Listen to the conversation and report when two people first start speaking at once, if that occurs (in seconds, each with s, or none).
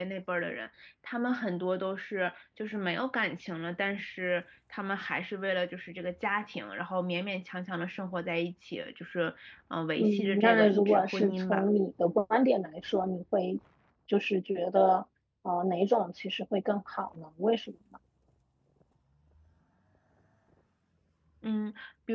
9.9 s